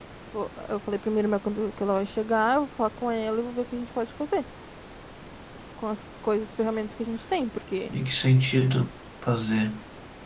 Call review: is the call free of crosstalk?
Yes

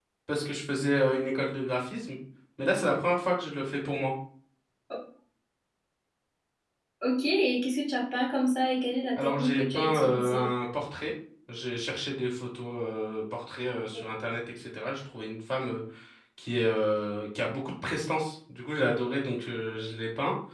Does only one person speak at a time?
No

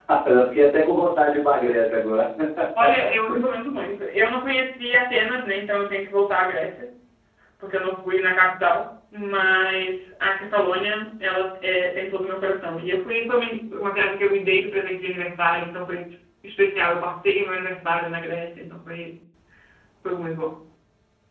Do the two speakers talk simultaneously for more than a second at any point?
No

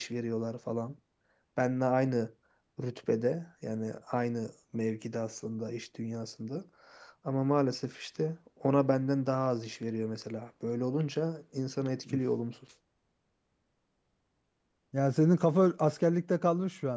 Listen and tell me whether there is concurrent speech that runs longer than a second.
No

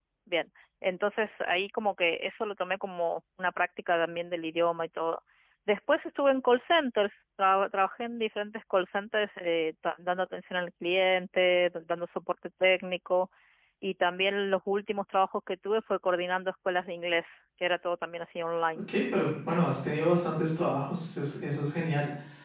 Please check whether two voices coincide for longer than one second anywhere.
No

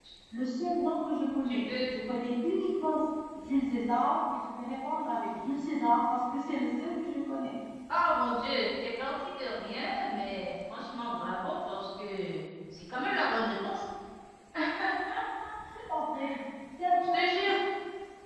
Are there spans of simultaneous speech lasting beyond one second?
No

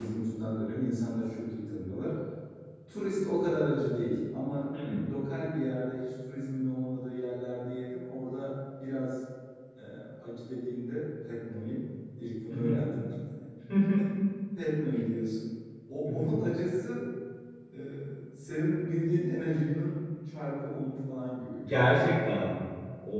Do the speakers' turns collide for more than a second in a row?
No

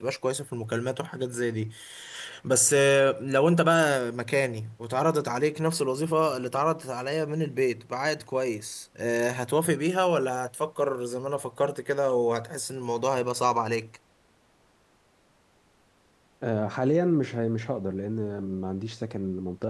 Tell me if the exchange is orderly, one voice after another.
Yes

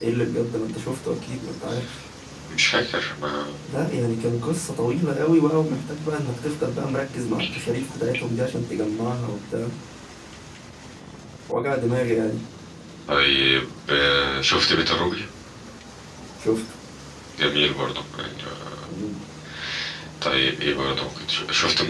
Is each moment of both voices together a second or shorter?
Yes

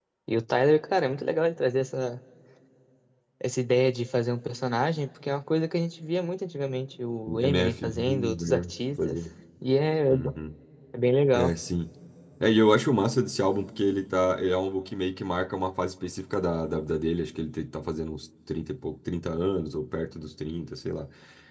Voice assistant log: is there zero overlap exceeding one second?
No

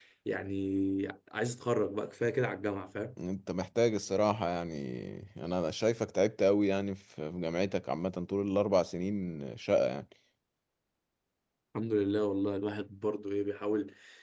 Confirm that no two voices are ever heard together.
Yes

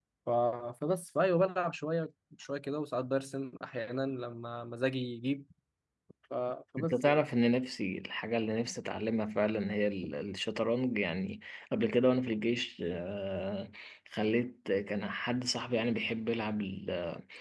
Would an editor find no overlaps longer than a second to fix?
Yes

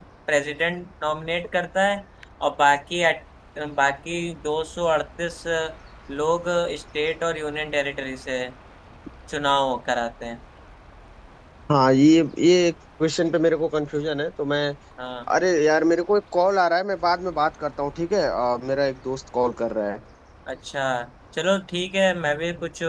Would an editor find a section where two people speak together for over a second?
No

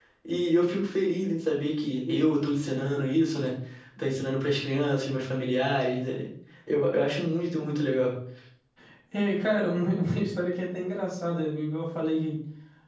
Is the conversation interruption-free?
Yes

